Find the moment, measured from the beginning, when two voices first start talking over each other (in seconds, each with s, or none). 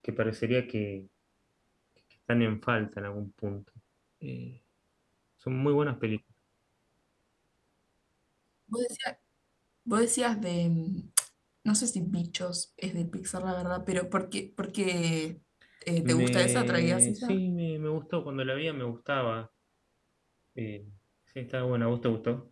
16.0 s